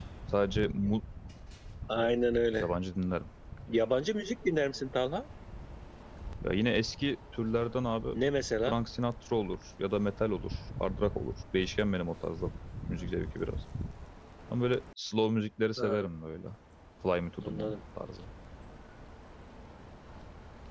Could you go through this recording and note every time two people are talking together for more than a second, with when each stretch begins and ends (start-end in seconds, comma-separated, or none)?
none